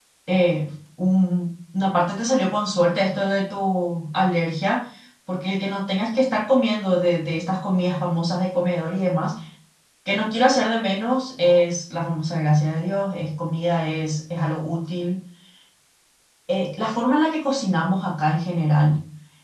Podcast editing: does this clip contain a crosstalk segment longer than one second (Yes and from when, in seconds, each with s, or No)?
No